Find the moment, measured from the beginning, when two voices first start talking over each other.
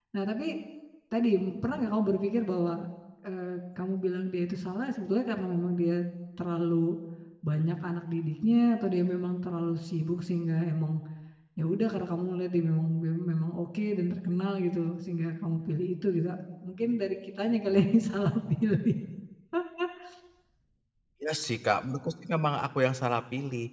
none

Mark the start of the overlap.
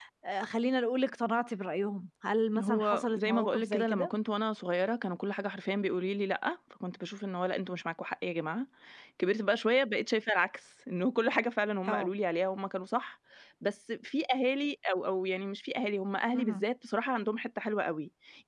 2.6 s

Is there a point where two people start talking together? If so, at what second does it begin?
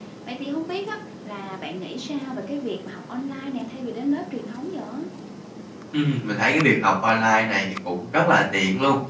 none

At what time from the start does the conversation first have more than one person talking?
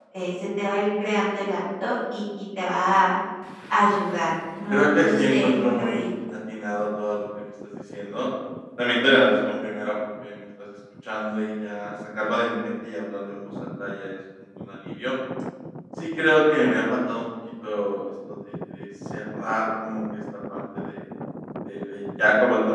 4.7 s

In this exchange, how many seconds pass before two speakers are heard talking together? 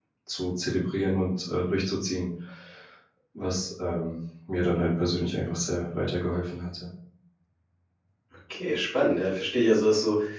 none

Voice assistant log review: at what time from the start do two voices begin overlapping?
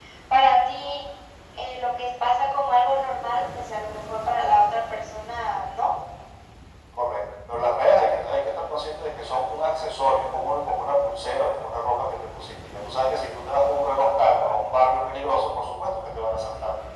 none

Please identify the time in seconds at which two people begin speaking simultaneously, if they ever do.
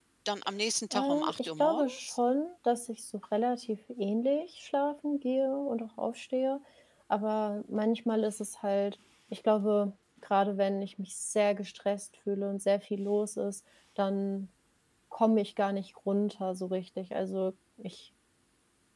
0.9 s

